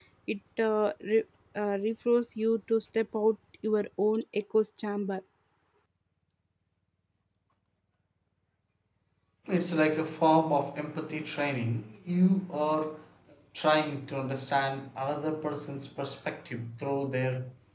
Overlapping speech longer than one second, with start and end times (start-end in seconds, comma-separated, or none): none